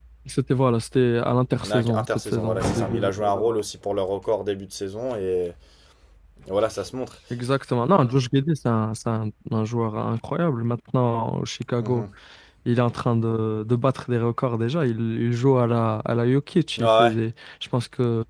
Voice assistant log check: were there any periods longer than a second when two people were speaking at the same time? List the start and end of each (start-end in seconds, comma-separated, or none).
1.6-3.6